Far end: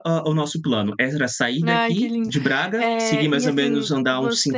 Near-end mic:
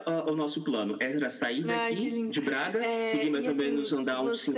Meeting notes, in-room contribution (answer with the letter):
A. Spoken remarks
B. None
B